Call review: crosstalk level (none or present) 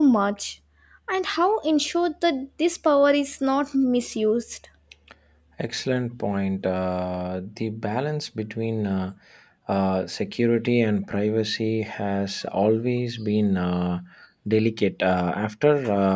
none